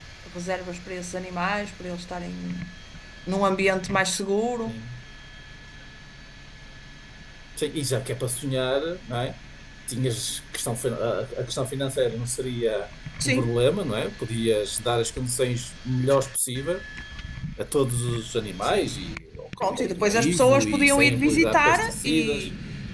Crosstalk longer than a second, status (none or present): present